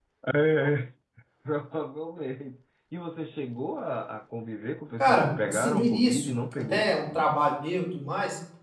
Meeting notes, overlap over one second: present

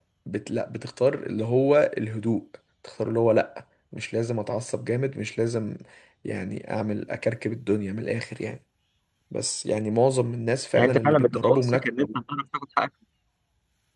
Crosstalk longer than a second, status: present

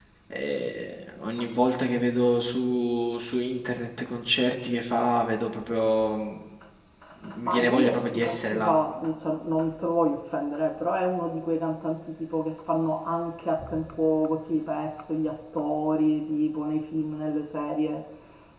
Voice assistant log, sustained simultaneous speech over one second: present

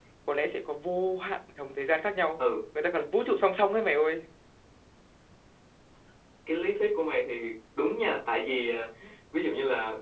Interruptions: none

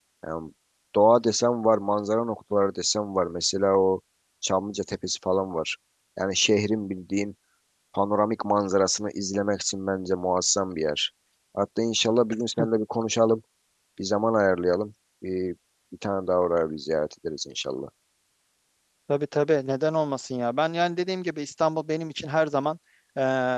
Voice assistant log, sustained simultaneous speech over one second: none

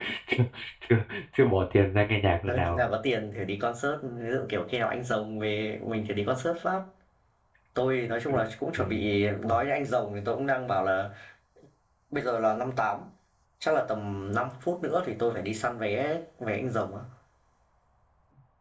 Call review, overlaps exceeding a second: none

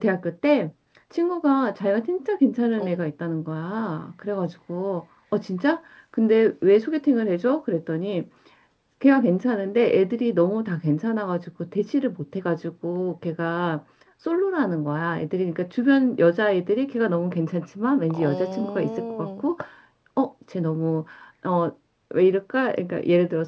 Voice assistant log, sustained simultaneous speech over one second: present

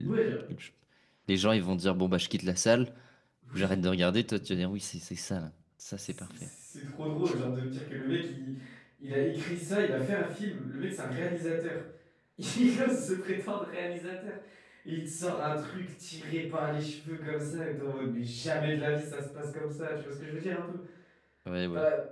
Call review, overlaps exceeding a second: none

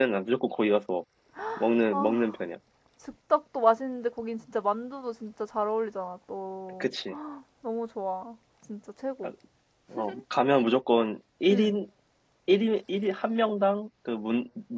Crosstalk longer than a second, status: none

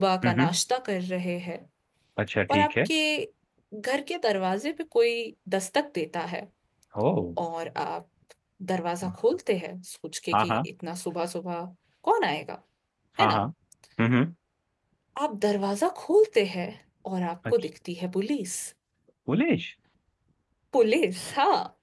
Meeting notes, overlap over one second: none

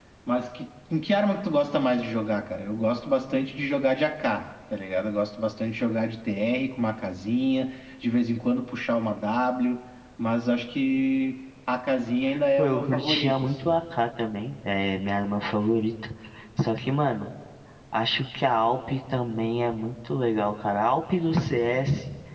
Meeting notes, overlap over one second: present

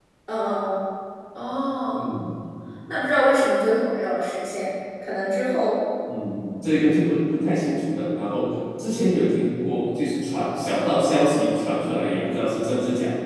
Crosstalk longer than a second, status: none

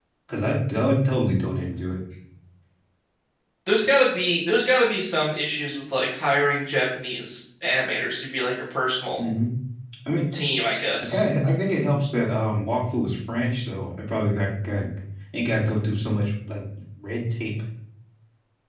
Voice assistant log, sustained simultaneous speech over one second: none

